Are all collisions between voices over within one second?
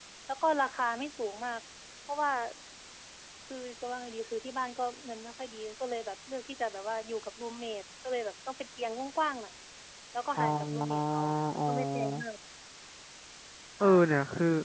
No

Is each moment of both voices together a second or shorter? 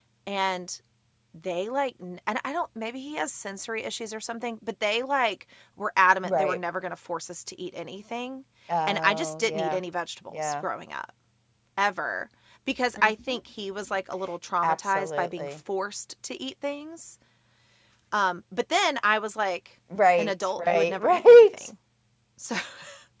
No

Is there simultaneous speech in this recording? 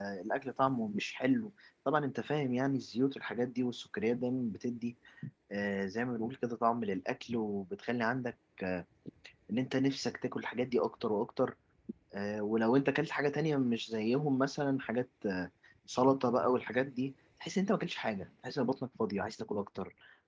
No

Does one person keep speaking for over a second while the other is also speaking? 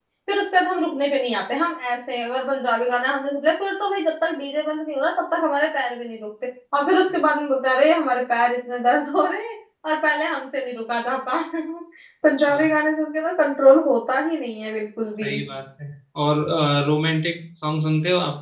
No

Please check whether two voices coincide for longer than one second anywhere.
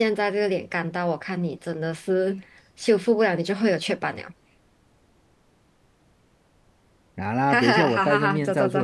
Yes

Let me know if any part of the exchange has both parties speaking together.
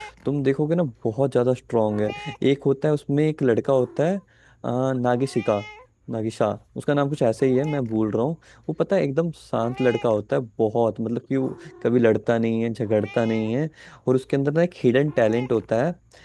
No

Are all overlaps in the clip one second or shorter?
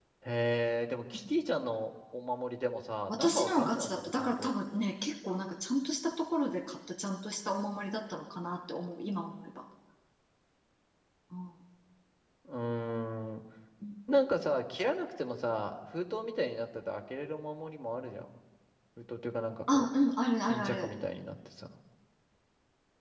No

